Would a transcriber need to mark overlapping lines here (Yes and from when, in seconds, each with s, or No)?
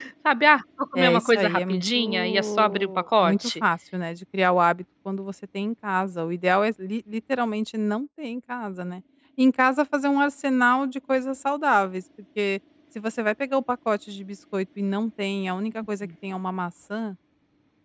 Yes, from 0.9 s